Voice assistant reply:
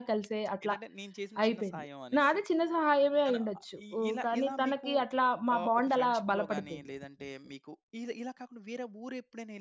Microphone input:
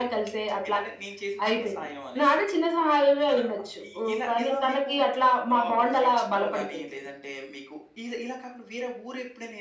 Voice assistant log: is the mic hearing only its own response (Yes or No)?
Yes